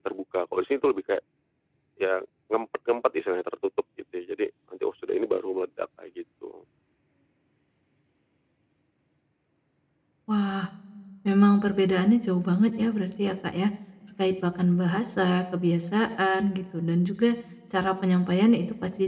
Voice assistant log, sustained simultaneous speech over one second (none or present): none